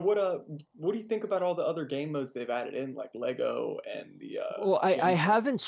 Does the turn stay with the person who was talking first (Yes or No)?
No